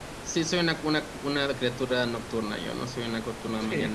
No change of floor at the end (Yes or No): No